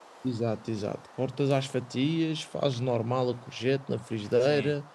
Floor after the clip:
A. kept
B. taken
A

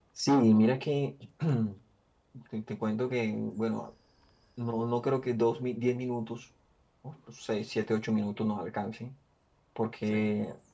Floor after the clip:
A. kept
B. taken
A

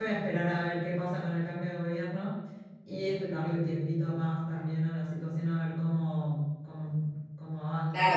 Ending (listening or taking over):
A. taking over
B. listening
A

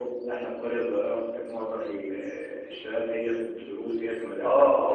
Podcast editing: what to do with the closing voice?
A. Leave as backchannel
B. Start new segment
B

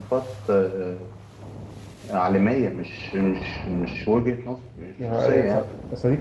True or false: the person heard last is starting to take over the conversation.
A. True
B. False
A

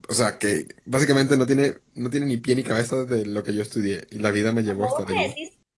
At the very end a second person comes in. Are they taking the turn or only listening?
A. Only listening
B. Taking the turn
B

